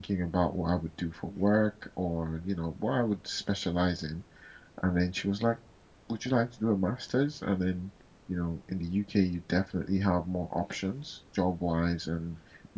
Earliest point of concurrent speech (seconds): none

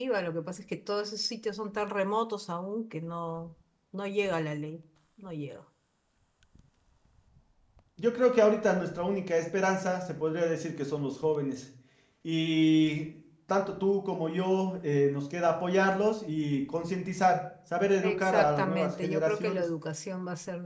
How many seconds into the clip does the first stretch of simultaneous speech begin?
18.0 s

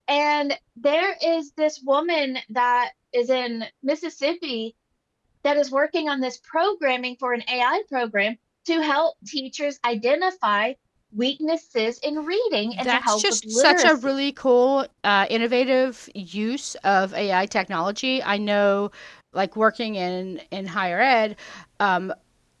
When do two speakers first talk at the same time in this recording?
12.7 s

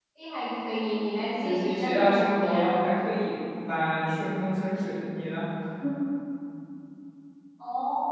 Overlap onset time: 1.4 s

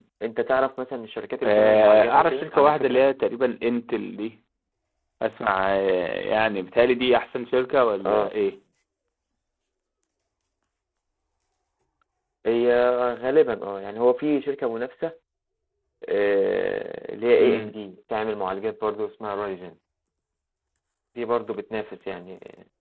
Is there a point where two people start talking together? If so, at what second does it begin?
1.4 s

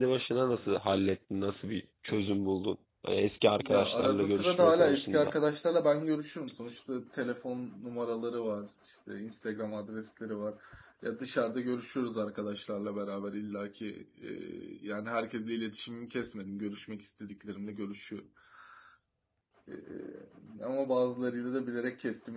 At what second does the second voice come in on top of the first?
3.6 s

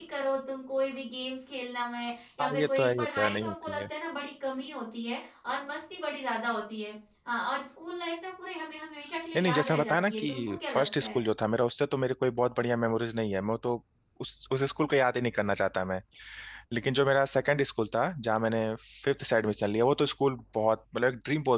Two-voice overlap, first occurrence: 2.4 s

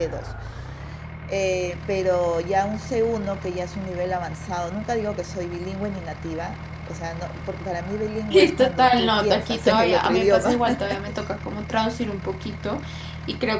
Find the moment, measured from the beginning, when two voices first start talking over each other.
8.3 s

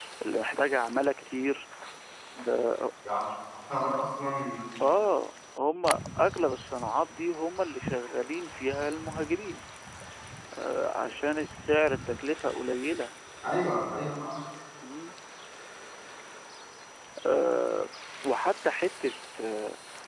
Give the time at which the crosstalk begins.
none

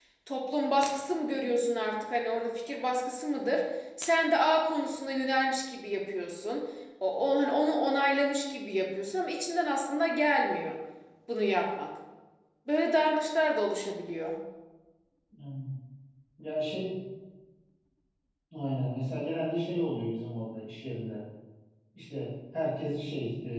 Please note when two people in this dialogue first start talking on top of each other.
none

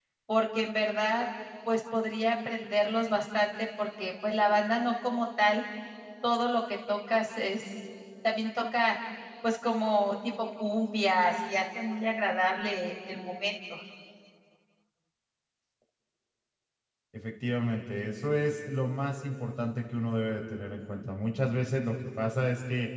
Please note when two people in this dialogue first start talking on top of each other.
none

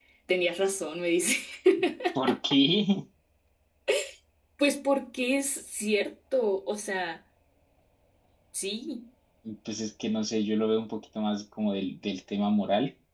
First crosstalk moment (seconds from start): none

